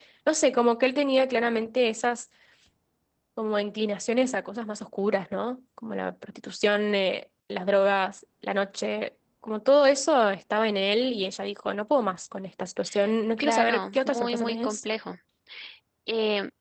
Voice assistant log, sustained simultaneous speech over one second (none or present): present